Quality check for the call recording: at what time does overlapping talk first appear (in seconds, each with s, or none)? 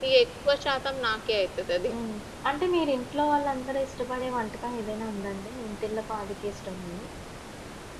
none